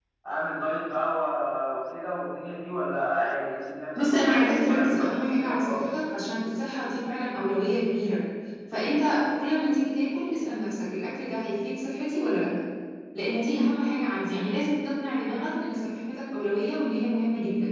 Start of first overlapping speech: 4.0 s

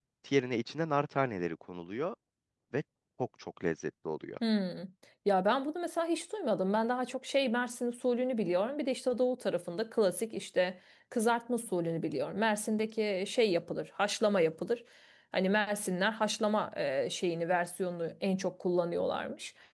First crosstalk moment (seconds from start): none

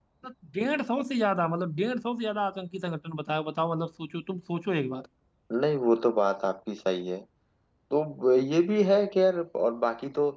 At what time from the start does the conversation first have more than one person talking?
none

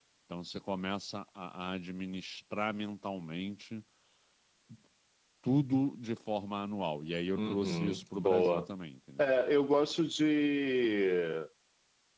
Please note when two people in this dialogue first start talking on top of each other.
7.4 s

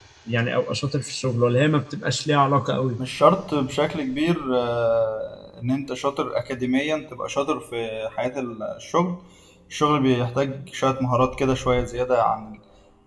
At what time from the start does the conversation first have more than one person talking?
none

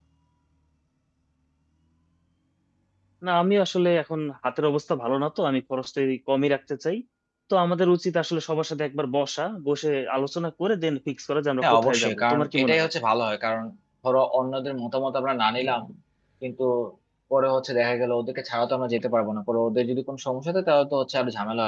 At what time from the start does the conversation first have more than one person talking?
11.6 s

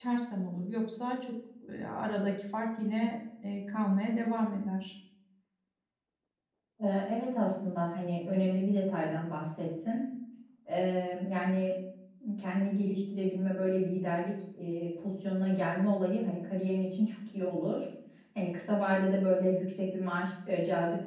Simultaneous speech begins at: none

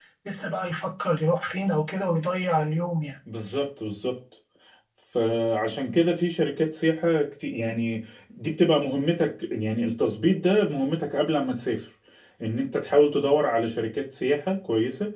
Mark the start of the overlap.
none

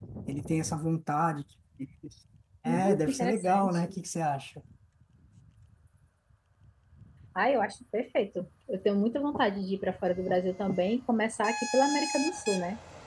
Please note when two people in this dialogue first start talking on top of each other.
2.6 s

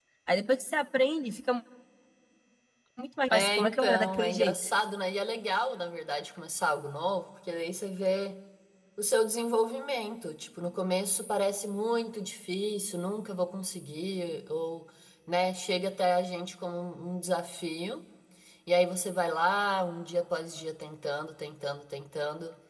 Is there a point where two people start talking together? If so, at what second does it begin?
3.3 s

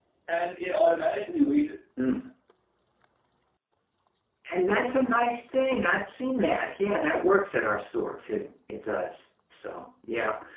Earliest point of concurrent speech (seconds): none

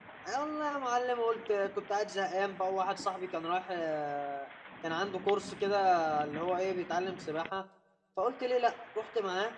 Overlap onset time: none

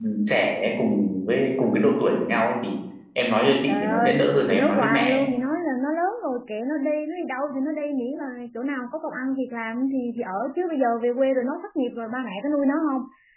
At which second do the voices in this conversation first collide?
3.7 s

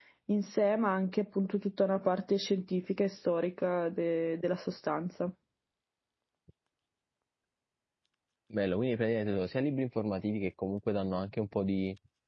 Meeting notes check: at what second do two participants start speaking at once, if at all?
none

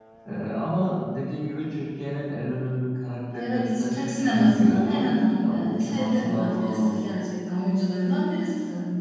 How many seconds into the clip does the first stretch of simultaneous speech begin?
3.3 s

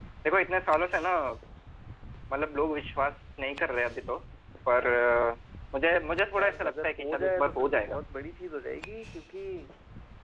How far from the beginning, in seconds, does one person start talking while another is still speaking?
6.4 s

